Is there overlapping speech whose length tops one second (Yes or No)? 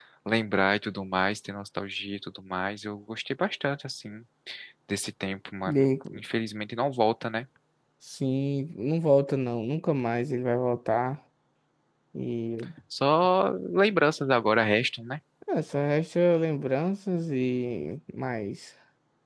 No